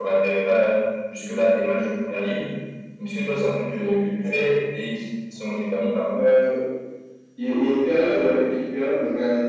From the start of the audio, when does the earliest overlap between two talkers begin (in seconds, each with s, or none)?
none